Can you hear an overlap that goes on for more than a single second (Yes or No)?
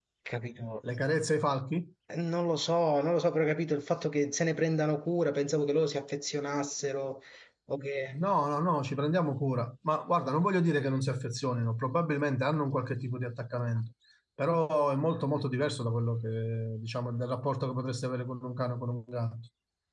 No